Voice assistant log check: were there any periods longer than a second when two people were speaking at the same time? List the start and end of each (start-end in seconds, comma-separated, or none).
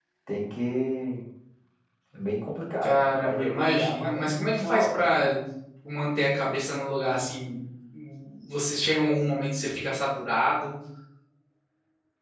2.8-5.0